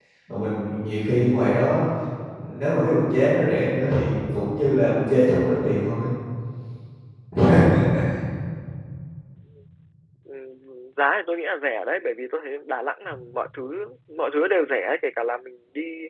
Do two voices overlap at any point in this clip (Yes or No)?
No